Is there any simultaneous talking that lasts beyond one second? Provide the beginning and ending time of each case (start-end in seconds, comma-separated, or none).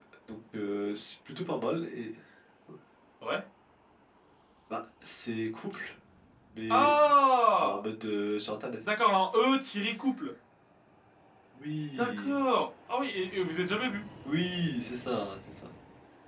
none